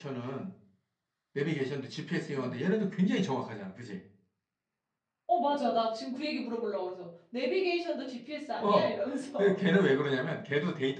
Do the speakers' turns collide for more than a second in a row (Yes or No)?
No